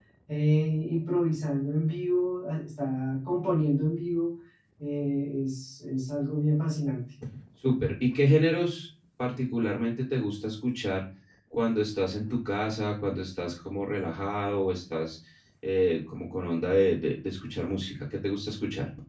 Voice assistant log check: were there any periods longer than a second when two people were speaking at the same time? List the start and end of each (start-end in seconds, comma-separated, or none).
none